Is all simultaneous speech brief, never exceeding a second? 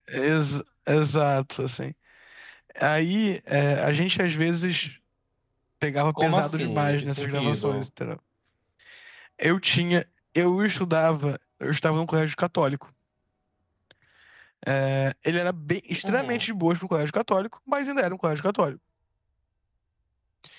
No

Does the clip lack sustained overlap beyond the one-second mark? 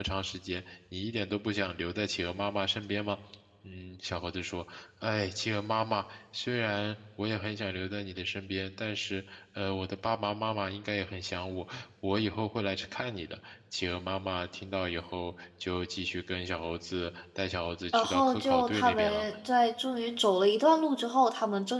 No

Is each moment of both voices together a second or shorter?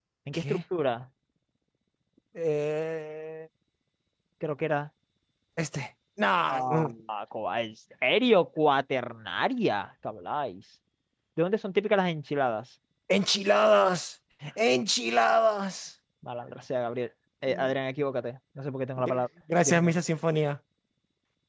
Yes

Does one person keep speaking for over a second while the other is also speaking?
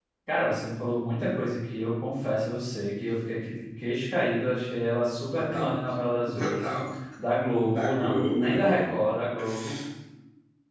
Yes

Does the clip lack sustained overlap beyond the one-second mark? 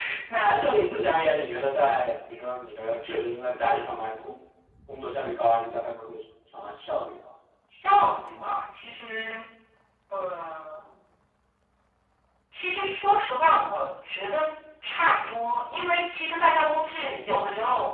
Yes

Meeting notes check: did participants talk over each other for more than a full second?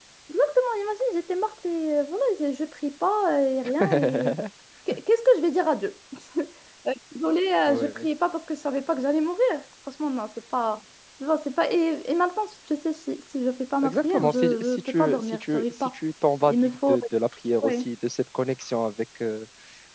Yes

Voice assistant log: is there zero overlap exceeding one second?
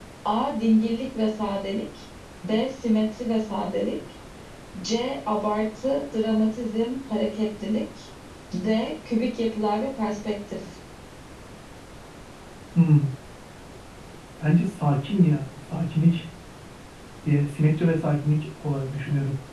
Yes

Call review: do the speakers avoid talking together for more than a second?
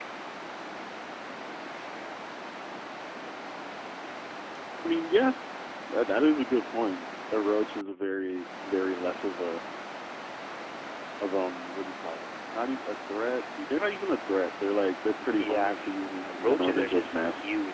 No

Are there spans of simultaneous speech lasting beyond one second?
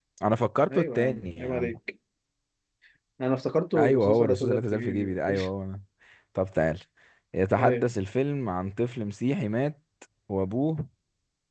Yes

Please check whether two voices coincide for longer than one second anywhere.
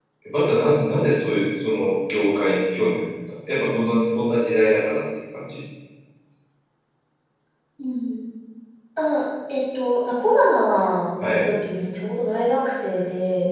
No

